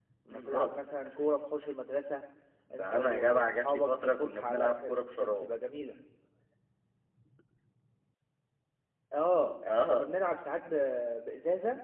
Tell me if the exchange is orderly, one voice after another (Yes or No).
No